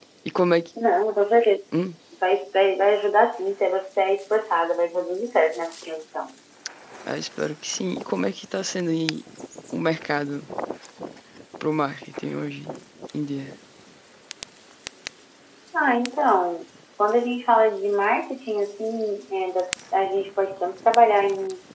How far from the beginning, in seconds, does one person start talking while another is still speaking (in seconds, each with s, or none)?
none